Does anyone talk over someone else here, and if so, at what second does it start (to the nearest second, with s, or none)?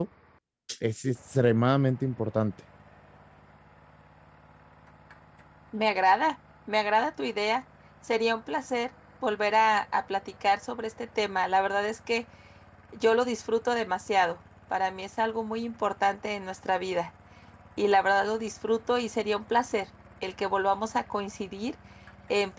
none